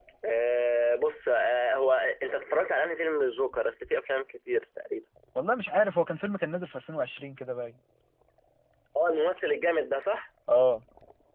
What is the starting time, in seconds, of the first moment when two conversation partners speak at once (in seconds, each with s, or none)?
none